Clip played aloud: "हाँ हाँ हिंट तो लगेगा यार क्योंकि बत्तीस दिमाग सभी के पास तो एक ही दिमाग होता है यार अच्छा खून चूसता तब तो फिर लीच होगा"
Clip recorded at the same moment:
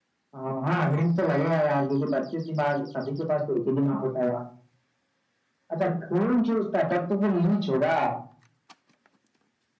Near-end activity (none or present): none